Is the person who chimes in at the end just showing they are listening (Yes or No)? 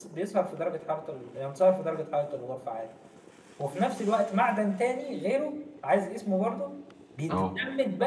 Yes